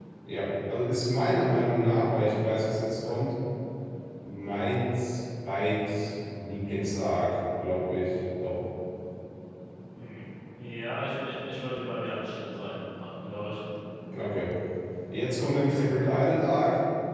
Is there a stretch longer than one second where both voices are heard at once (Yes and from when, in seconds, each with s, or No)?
No